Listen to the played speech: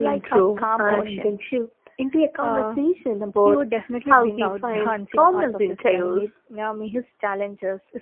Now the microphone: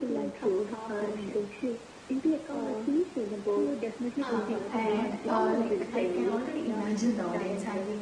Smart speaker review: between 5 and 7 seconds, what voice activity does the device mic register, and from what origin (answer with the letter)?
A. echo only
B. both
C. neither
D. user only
B